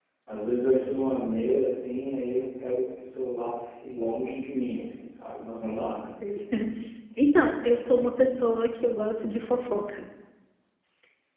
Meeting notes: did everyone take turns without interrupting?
Yes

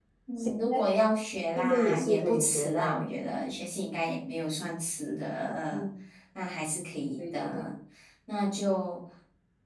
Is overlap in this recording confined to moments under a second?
No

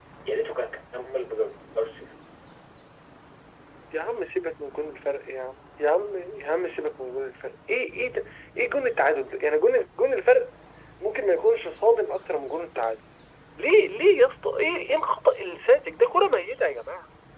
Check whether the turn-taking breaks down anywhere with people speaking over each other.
No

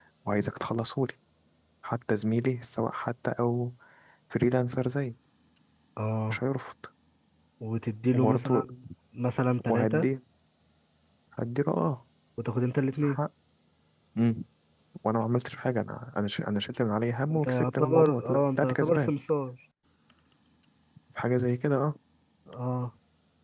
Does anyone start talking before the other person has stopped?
Yes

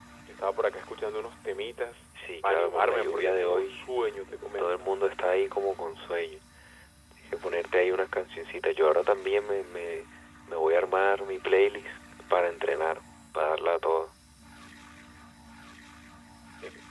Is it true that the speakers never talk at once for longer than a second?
No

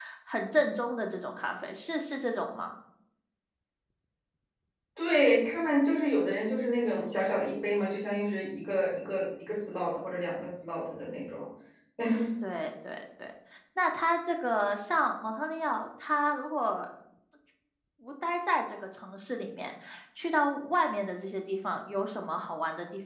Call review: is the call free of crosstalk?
Yes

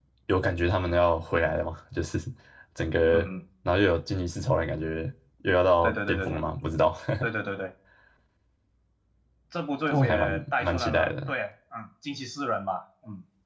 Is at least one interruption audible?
Yes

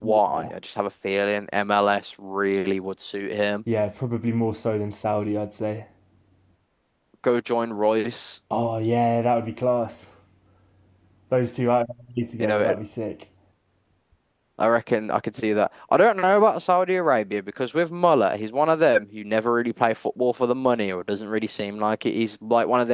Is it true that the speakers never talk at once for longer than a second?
Yes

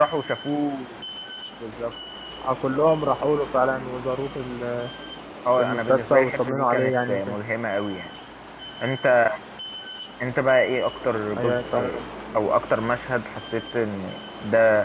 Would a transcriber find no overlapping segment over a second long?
No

